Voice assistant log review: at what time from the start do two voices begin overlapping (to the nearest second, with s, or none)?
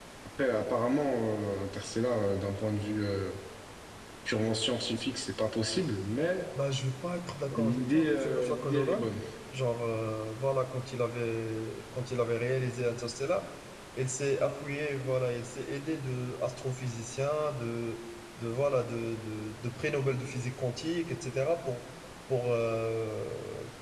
8 s